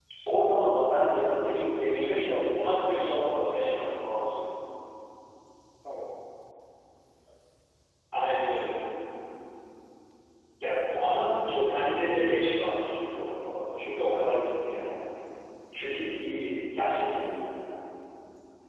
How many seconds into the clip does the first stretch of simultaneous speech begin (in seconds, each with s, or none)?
2.0 s